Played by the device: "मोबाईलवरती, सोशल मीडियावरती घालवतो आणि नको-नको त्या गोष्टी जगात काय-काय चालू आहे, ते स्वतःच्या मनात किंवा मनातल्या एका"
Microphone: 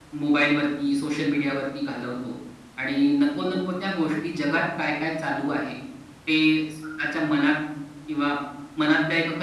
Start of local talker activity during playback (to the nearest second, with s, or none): none